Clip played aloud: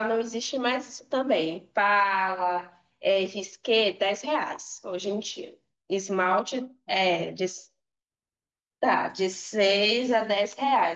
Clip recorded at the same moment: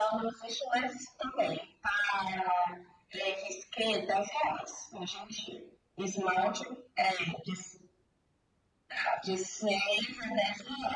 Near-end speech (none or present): none